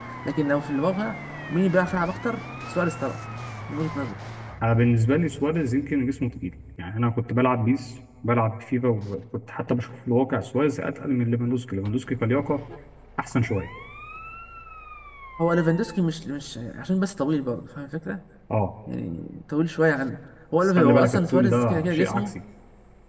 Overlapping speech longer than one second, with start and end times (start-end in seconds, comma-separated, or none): 20.6-22.3